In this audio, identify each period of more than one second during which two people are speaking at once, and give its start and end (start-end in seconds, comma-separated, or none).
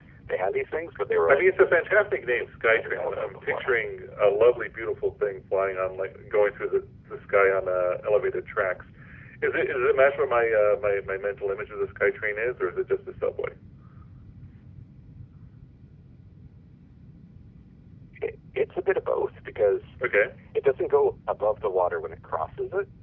1.3-3.9